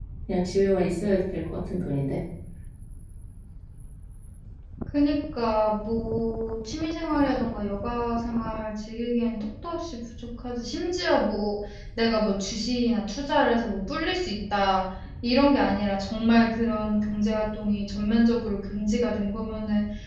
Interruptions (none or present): none